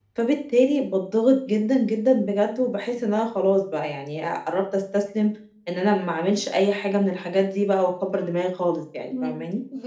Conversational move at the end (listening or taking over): taking over